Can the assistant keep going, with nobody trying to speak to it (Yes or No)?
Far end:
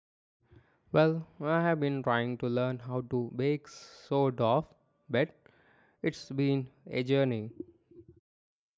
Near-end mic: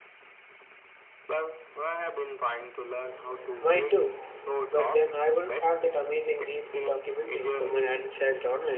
No